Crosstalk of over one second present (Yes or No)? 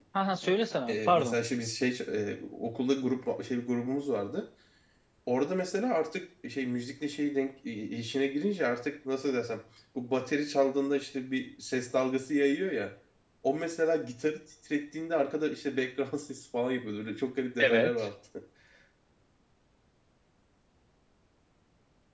No